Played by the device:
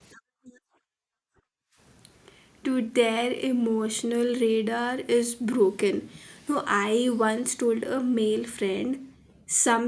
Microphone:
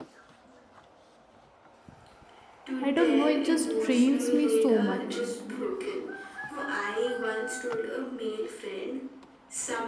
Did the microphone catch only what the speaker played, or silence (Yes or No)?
No